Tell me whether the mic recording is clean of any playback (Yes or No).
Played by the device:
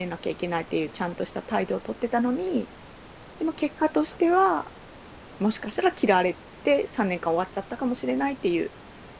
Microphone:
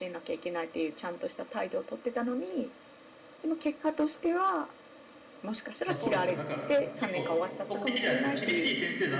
No